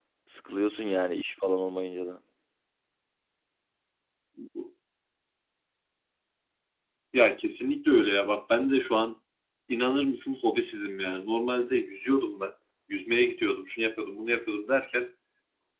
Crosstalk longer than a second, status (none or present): none